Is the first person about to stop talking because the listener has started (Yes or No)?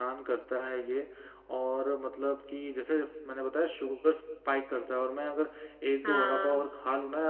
No